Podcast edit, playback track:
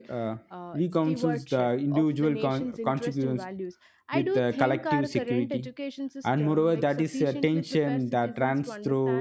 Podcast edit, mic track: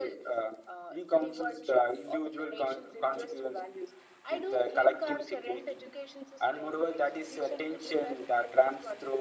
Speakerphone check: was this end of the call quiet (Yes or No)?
Yes